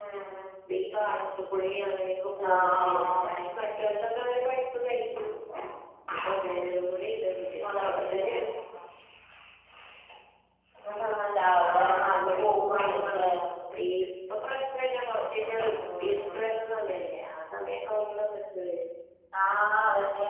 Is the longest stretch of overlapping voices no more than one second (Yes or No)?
No